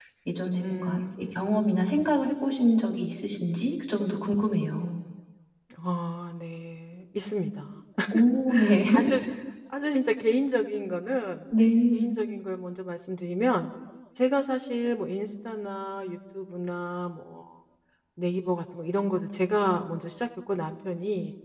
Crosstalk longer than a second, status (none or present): present